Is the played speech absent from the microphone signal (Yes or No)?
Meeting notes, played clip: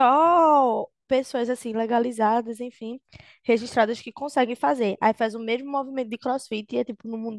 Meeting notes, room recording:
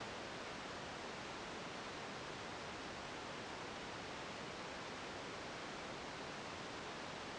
Yes